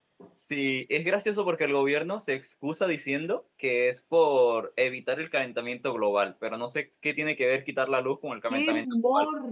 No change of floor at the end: No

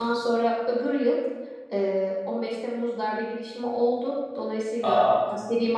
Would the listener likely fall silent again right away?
Yes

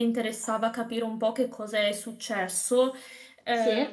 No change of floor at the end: Yes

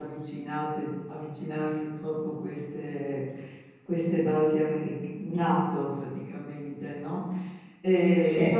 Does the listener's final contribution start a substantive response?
No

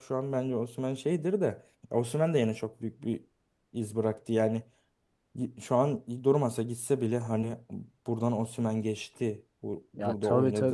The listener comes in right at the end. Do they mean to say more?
Yes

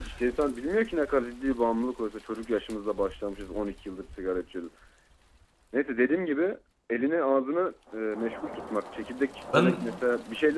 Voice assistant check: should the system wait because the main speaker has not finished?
Yes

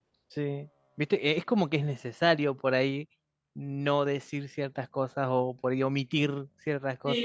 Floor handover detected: Yes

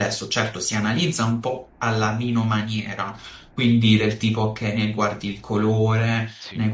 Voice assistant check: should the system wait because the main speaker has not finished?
Yes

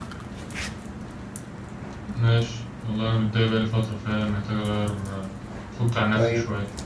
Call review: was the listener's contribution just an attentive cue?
No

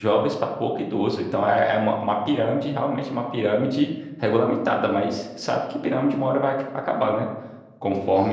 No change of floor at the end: Yes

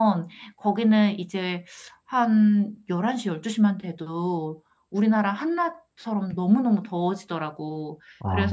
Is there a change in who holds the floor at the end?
No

